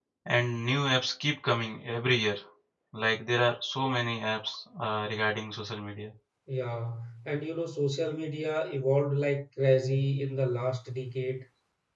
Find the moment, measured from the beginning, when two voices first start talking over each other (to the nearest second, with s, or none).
none